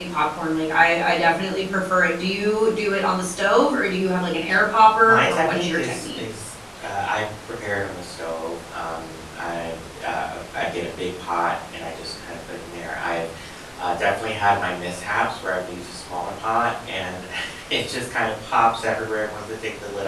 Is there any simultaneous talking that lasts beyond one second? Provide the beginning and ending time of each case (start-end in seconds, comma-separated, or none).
5.0-6.2